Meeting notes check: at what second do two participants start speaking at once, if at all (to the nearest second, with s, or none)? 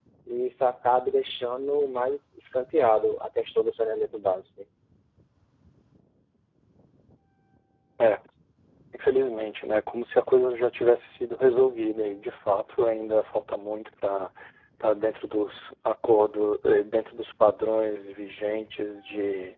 none